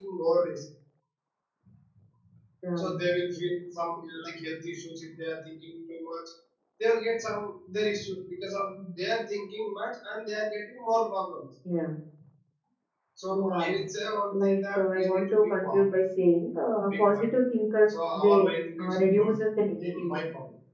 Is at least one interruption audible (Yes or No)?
Yes